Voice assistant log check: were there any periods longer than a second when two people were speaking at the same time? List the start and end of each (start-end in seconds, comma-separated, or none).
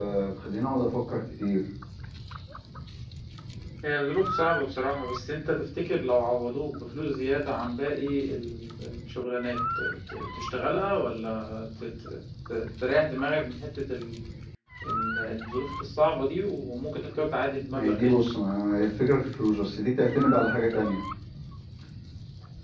none